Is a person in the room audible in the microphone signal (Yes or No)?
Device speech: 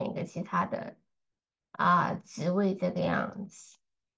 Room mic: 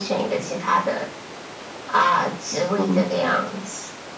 Yes